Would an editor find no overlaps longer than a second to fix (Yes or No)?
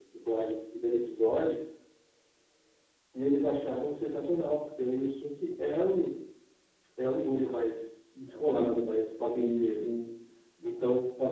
Yes